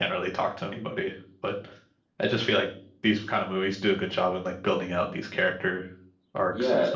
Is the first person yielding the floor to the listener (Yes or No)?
Yes